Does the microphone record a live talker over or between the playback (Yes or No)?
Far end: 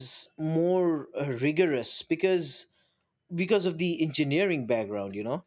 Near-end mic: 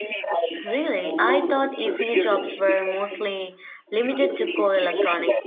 Yes